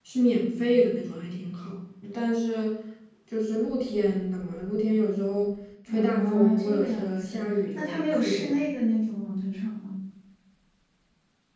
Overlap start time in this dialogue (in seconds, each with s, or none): 5.9 s